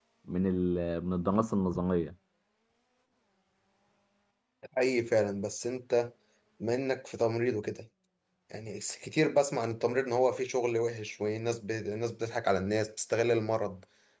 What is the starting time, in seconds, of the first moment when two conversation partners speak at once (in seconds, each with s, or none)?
none